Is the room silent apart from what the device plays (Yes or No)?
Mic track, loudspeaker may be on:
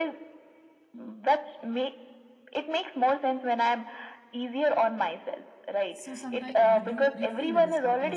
No